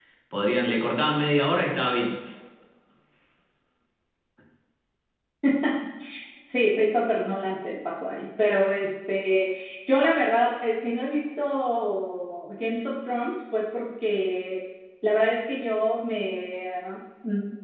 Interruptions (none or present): none